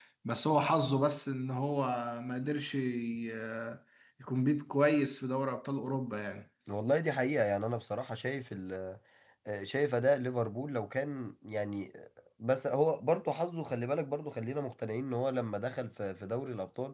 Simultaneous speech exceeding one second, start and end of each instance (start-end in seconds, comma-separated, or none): none